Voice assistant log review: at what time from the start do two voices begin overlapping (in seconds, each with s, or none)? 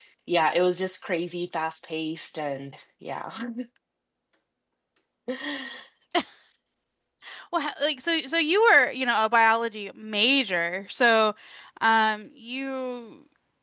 none